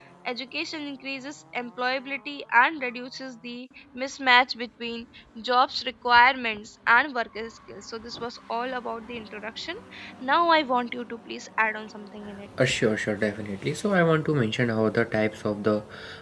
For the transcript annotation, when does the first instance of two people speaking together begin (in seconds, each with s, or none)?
none